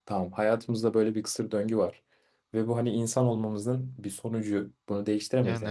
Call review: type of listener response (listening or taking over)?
listening